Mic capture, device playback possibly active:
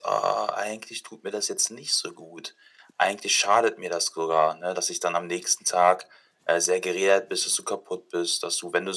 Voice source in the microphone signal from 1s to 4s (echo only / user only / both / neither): echo only